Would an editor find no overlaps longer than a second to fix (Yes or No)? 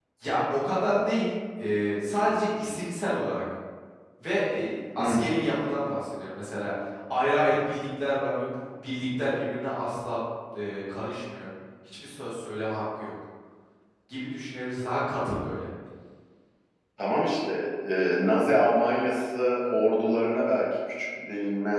Yes